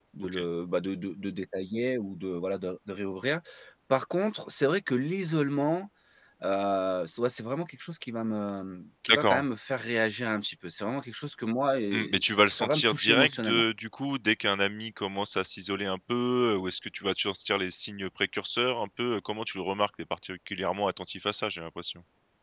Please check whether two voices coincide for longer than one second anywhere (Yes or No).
Yes